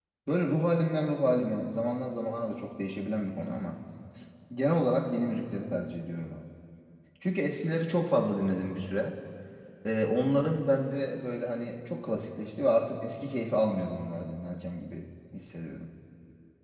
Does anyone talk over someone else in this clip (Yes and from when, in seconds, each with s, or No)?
No